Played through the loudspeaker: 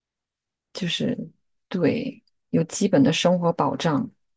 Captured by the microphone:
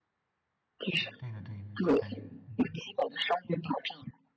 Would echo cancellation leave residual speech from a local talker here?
Yes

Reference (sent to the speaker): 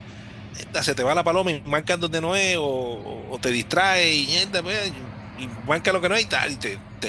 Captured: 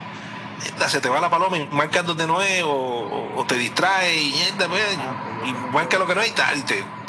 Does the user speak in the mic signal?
Yes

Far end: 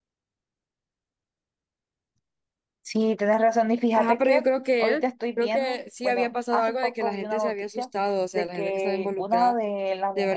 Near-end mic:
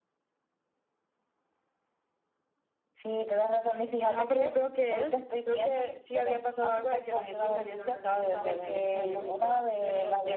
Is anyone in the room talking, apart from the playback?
Yes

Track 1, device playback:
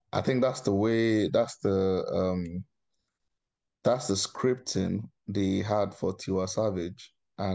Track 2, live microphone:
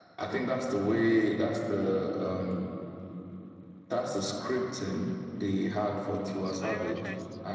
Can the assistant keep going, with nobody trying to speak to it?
No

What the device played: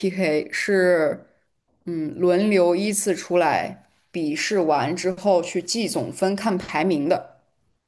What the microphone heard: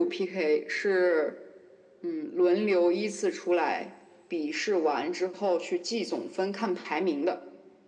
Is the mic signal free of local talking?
Yes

